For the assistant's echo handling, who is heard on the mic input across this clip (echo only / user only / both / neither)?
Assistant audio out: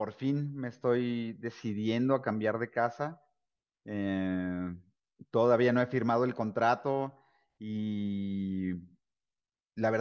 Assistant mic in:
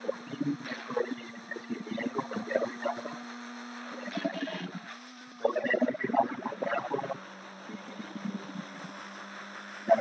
echo only